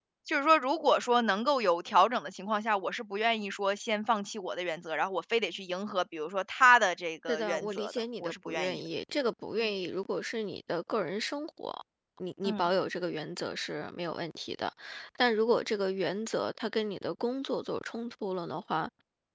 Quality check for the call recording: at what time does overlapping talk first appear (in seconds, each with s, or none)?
7.3 s